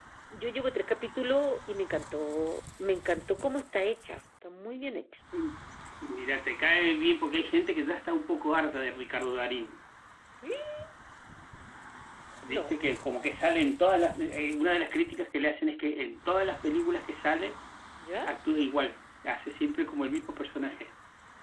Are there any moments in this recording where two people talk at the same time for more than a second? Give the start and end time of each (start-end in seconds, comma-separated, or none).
none